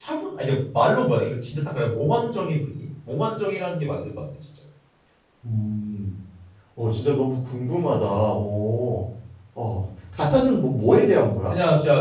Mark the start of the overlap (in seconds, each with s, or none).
none